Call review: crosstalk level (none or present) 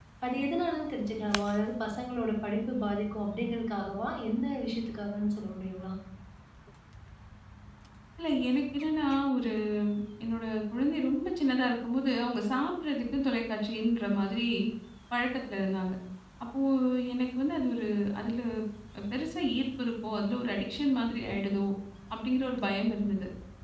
none